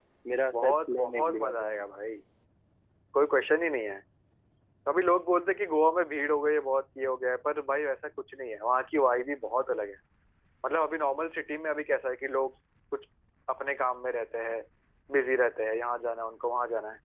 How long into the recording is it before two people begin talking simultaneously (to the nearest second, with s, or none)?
1 s